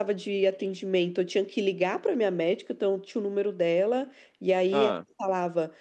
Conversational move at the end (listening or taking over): listening